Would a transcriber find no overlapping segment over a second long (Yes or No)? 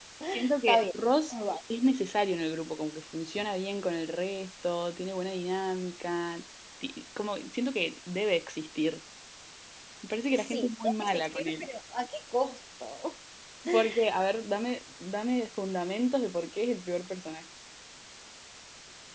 No